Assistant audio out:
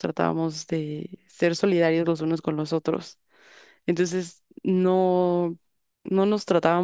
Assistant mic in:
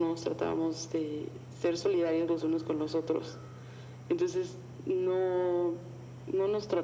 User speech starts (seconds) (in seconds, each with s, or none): none